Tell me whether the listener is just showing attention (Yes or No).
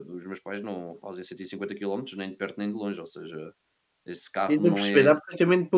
No